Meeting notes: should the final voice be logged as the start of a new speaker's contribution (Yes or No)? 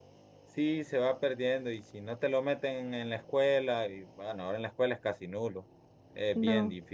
No